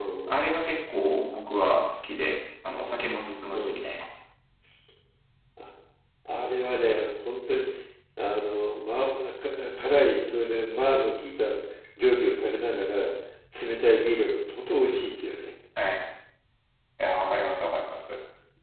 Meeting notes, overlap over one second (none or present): none